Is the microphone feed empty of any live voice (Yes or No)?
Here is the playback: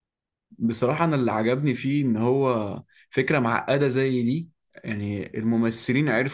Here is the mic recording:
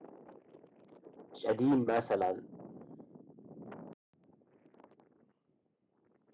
No